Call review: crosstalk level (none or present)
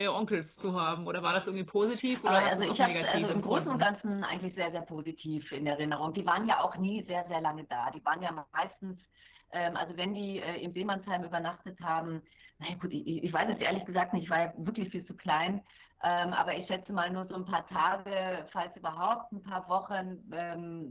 present